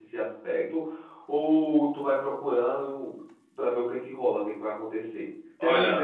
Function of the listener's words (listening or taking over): listening